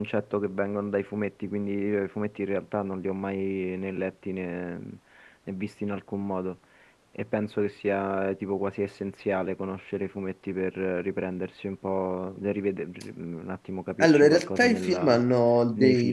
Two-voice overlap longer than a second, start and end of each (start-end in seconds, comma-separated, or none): 14.0-15.2